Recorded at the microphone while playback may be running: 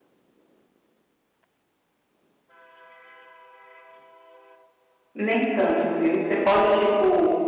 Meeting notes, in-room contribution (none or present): present